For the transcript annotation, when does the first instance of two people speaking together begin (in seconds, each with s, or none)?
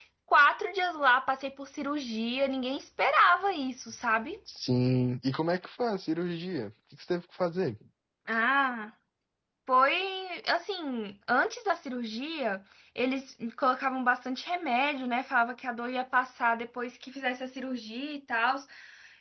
none